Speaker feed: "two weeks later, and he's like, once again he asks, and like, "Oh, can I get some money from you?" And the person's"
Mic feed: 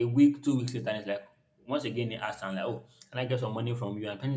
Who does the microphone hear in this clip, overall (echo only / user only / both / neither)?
echo only